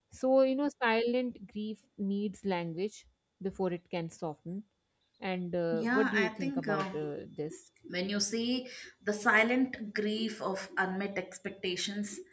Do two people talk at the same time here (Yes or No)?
Yes